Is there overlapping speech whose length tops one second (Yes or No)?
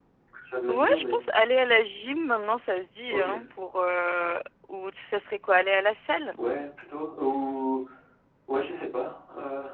No